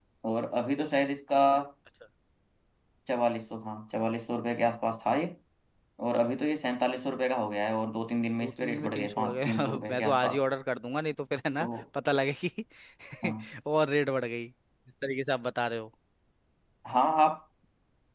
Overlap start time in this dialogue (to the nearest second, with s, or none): 8 s